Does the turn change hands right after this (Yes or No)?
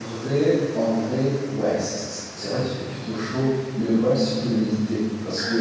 No